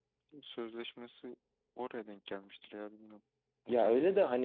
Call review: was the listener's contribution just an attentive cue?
No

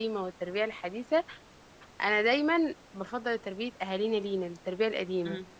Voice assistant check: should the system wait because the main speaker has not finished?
No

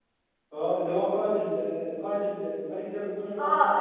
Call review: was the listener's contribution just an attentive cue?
No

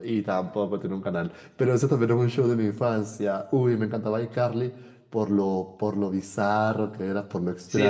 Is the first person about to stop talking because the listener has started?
Yes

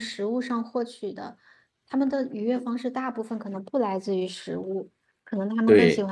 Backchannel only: Yes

